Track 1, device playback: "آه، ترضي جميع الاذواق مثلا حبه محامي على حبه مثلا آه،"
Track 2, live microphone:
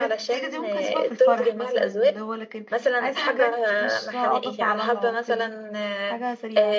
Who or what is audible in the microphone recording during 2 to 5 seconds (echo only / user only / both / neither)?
both